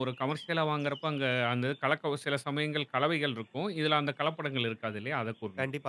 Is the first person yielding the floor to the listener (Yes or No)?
Yes